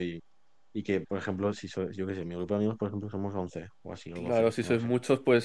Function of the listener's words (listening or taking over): taking over